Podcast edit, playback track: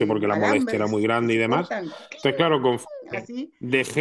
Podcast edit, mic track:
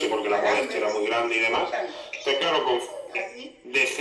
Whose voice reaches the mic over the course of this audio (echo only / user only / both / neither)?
echo only